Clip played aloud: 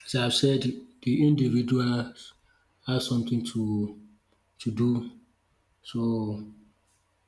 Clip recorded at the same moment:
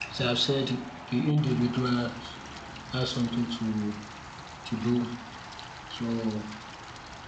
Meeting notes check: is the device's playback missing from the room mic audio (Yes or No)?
No